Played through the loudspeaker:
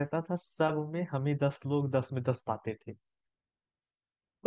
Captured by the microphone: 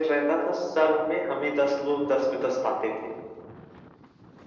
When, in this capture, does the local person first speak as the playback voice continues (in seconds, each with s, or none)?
none